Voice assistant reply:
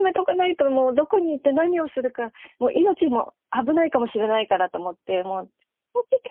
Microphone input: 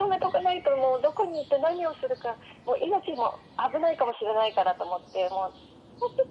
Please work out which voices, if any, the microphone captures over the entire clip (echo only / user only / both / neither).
echo only